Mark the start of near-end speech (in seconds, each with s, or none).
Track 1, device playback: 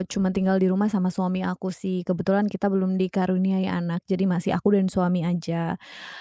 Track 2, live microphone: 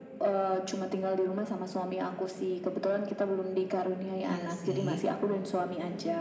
4.2 s